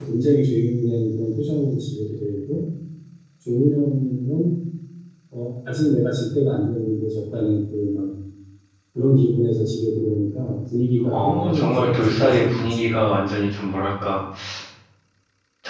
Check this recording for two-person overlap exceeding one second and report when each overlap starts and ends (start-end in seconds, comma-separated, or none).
11.1-12.9